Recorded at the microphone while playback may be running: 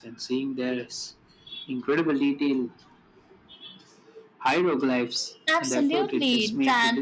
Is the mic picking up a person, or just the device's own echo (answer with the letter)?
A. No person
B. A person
B